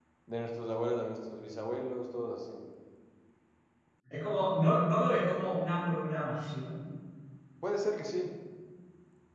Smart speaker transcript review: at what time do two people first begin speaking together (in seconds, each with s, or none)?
none